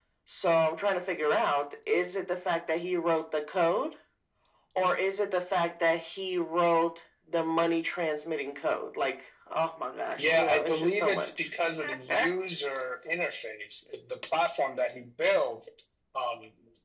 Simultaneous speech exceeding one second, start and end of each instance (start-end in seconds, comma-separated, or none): 10.2-11.5